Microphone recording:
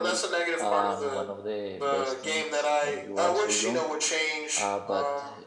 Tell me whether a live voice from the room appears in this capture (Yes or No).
Yes